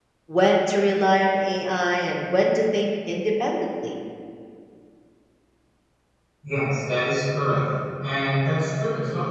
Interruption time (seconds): none

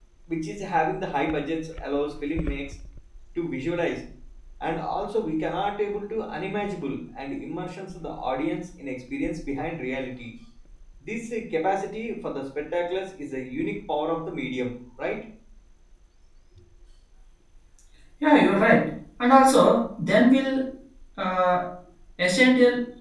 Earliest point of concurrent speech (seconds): none

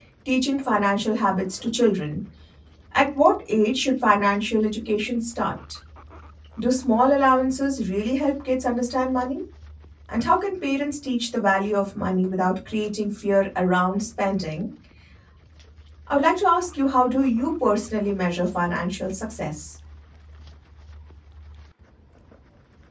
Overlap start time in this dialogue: none

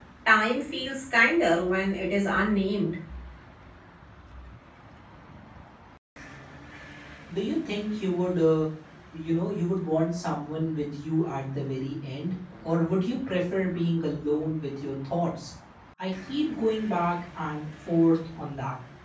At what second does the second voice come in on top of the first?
none

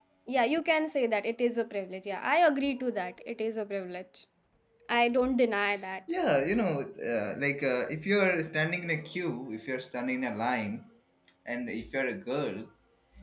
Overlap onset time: none

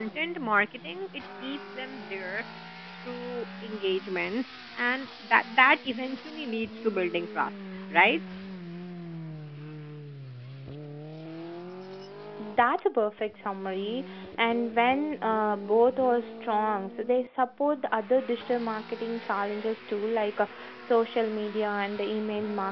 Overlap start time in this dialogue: none

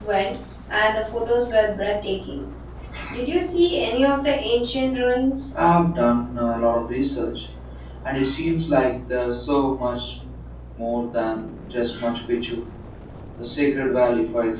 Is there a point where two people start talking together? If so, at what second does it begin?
none

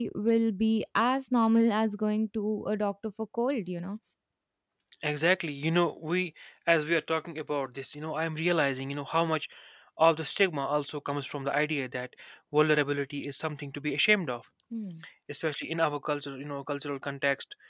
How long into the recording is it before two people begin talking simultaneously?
none

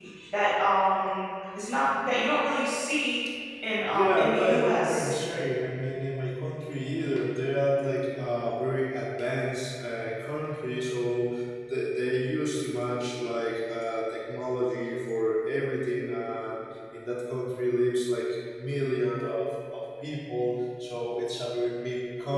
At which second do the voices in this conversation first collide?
3.9 s

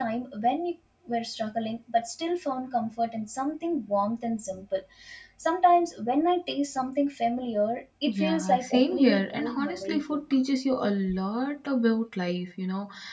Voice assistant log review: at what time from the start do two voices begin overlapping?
8.1 s

